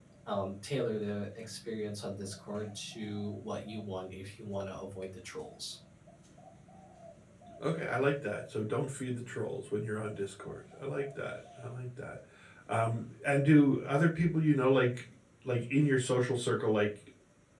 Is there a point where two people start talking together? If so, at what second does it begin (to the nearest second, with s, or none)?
none